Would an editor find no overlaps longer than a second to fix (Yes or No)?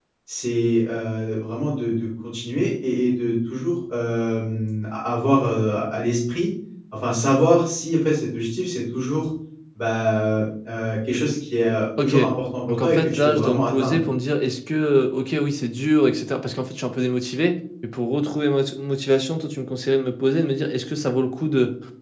No